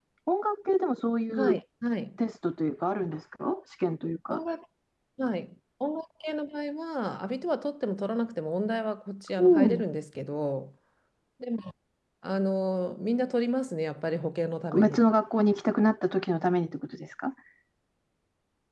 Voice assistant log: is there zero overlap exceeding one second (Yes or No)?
Yes